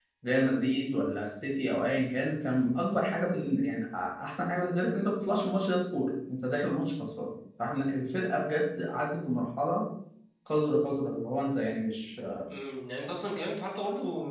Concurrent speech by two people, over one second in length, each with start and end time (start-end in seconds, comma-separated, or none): none